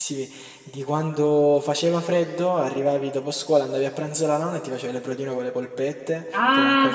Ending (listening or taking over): listening